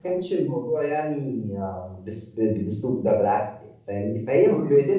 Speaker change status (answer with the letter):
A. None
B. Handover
A